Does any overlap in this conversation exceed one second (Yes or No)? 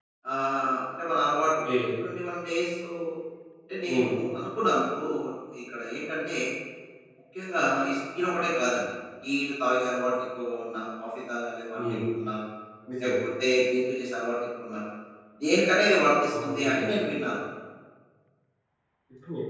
No